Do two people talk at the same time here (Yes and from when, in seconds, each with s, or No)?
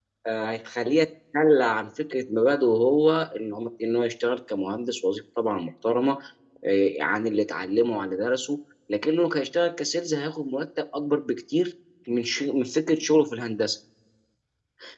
No